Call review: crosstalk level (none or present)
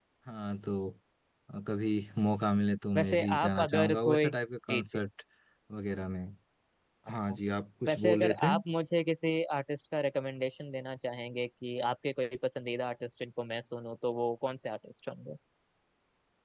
present